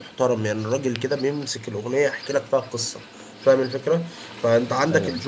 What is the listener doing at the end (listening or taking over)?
listening